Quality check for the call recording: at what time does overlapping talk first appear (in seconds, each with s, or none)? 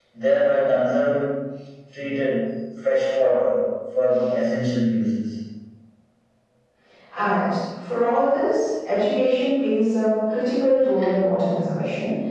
none